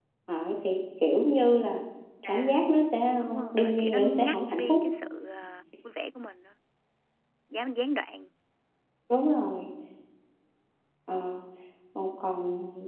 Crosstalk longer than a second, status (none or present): present